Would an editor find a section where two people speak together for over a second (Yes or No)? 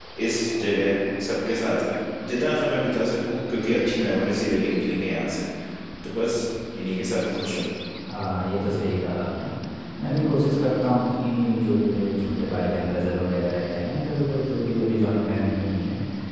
No